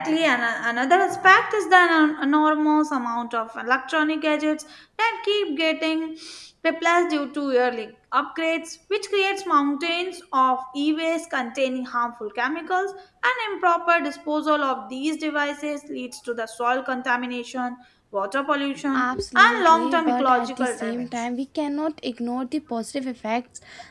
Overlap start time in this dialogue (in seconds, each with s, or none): 18.9 s